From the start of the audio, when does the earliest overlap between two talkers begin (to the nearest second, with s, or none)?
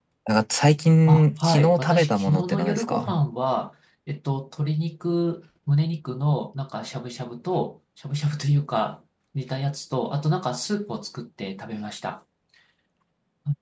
1 s